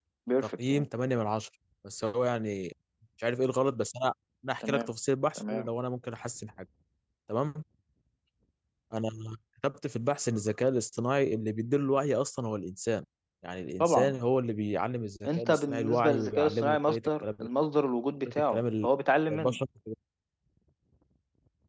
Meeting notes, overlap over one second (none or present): present